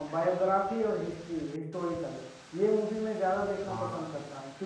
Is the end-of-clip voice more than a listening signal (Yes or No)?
No